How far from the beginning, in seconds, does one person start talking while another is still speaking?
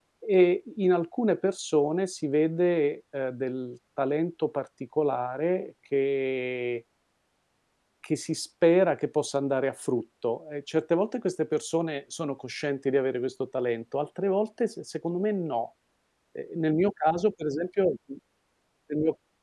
none

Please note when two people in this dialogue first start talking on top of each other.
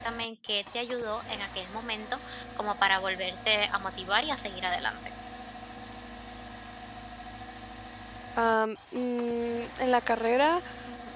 none

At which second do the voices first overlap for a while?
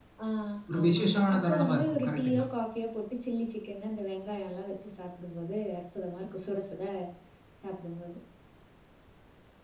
0.8 s

